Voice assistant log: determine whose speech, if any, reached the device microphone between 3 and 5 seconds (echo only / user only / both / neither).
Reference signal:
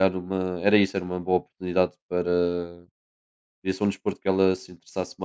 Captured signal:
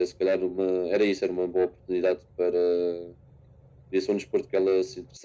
echo only